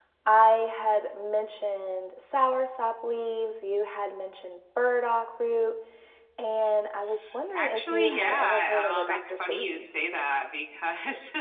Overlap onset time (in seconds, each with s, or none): 7.5 s